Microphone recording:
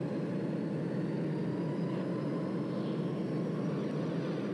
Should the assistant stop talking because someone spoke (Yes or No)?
No